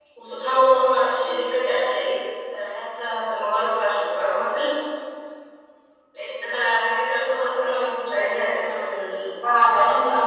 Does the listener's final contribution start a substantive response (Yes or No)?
Yes